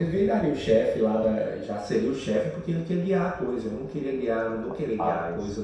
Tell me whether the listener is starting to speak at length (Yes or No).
No